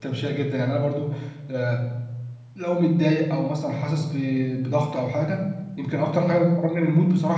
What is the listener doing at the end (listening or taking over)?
listening